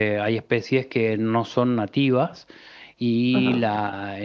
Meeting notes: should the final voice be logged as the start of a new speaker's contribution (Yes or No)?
No